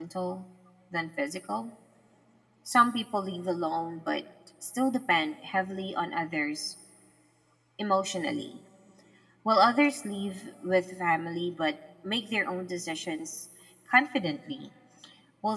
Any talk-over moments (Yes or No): No